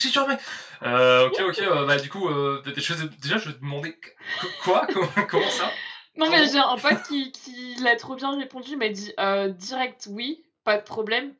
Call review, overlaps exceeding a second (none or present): none